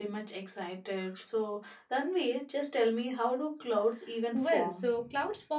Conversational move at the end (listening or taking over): taking over